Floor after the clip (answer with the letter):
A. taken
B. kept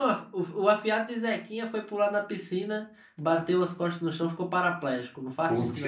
A